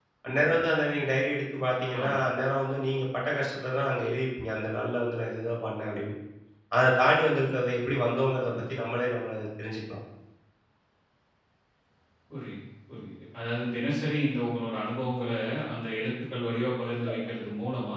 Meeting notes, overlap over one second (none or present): none